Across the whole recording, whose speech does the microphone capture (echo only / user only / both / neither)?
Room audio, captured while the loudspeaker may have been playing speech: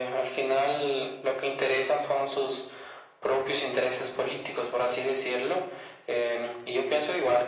echo only